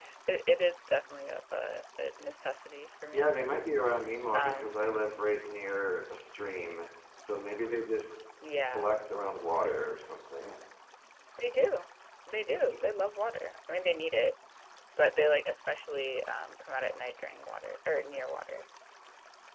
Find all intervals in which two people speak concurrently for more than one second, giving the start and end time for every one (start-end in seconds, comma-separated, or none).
none